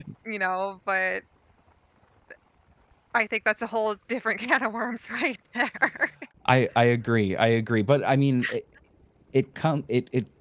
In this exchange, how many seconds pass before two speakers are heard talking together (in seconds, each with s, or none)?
none